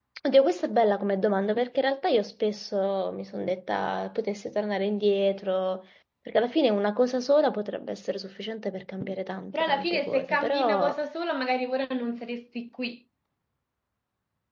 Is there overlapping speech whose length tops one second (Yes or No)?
Yes